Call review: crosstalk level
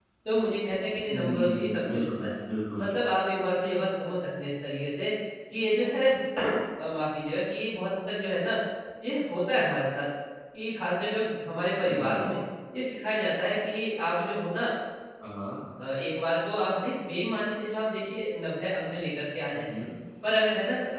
present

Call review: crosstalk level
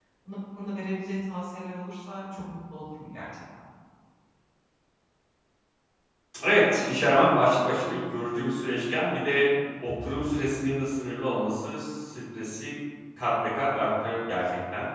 none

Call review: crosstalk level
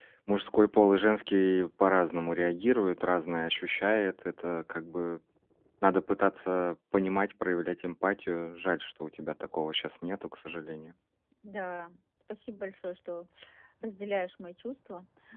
none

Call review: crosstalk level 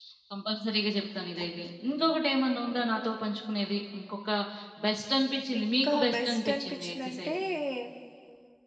present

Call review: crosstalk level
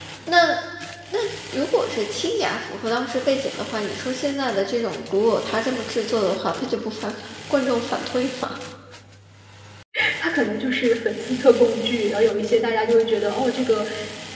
none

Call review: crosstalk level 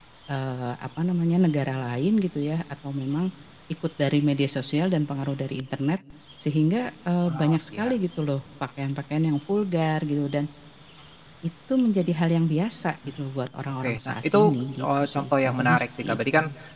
present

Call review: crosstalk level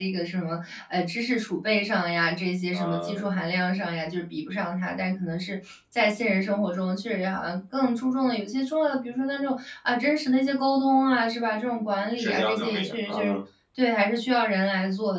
present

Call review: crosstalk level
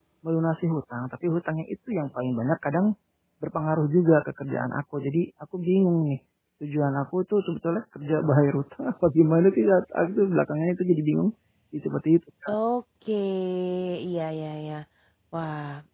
none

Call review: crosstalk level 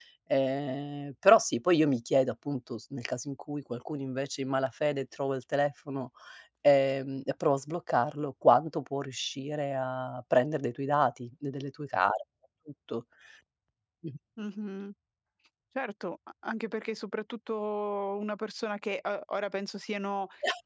none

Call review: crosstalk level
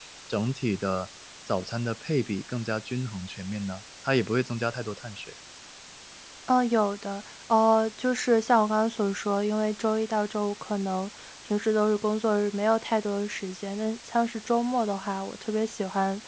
none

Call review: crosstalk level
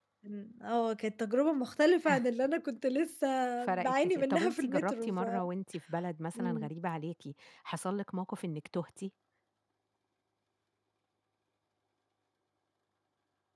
present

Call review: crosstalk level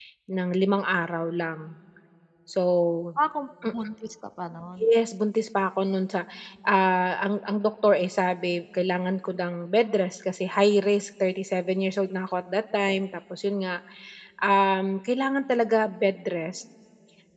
none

